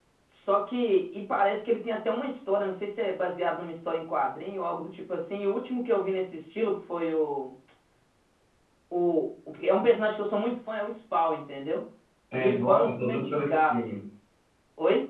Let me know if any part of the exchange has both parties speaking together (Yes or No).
Yes